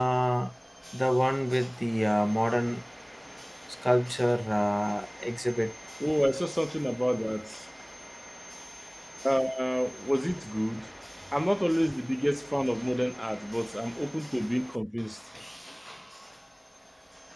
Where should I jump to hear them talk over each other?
none

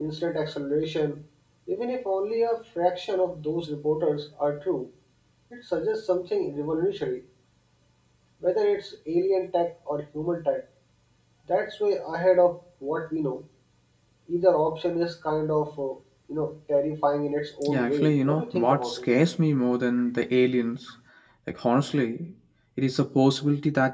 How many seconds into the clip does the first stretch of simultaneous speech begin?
17.6 s

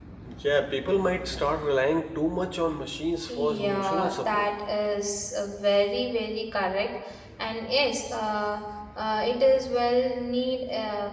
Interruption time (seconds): 3.3 s

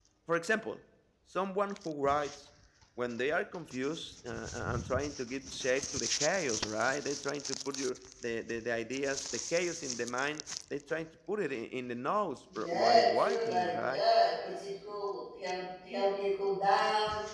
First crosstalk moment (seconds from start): 12.5 s

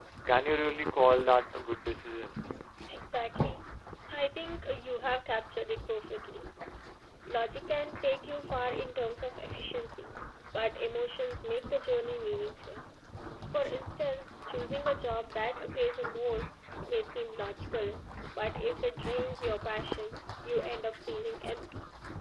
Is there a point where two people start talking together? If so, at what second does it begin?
none

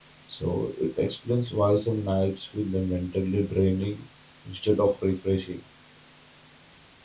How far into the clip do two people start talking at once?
none

